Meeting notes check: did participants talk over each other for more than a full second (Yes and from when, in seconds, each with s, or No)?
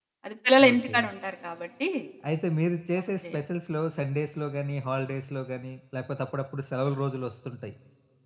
No